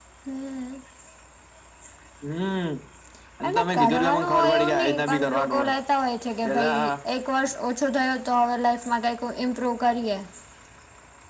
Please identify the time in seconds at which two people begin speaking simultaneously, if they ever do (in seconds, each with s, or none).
3.5 s